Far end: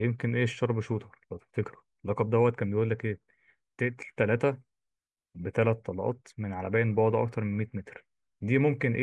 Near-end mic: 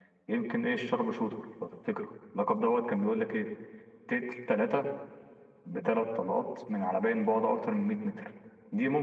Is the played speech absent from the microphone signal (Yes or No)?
No